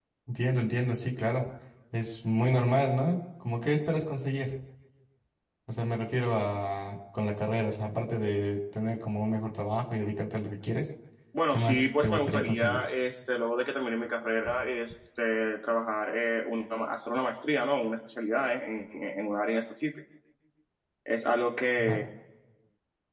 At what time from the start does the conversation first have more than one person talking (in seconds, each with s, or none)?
11.5 s